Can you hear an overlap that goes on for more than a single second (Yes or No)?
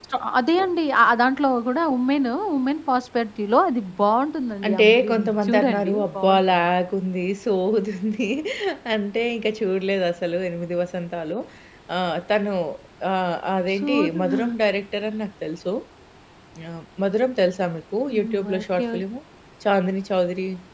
Yes